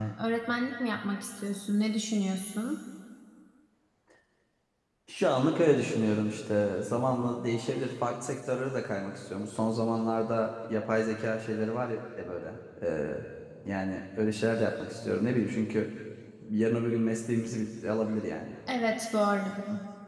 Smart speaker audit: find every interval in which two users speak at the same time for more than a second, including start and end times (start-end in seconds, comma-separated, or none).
none